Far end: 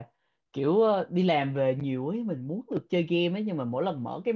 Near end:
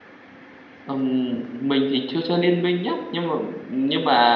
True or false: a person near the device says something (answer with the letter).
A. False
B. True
B